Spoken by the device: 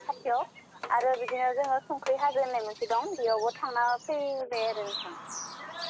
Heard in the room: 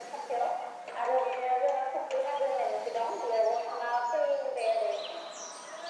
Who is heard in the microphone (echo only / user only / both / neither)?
echo only